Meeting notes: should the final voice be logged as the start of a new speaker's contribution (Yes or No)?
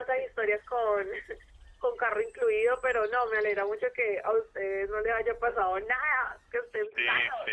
Yes